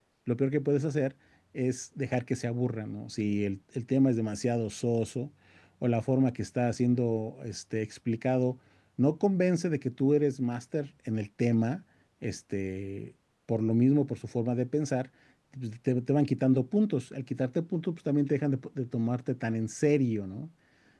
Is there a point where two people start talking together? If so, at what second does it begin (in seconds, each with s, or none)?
none